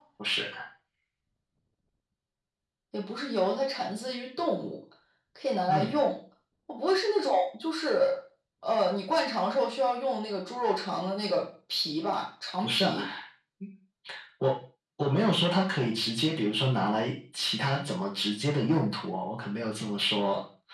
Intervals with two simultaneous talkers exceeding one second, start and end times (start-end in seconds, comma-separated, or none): none